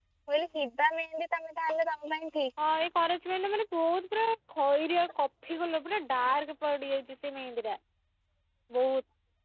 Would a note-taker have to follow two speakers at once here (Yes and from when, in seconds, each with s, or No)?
No